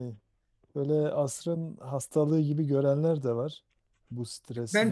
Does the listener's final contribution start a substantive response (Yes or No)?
Yes